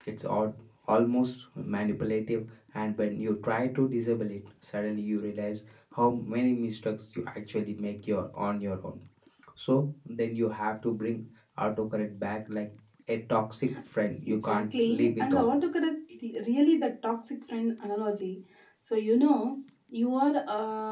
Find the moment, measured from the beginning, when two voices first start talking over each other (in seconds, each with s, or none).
14.3 s